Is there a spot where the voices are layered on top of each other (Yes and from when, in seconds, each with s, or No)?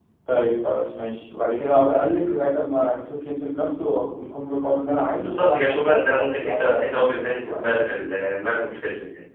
Yes, from 5.2 s